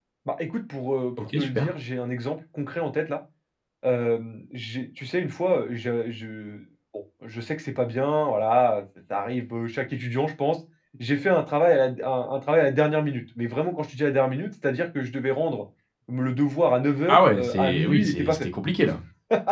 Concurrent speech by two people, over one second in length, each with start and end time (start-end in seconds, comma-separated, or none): 17.1-18.5